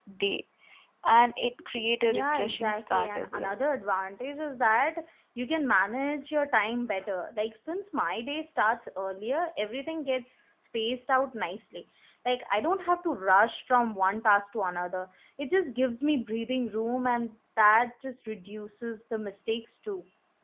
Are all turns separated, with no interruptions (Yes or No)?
No